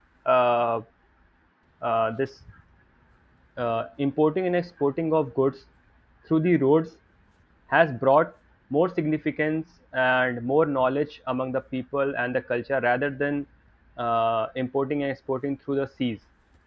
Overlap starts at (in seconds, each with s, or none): none